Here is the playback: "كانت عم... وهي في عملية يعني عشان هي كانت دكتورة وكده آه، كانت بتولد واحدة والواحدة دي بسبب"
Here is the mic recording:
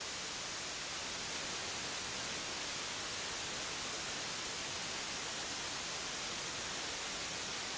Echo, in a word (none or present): none